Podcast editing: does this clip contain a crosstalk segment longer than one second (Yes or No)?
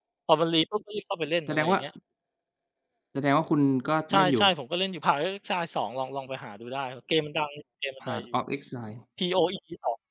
No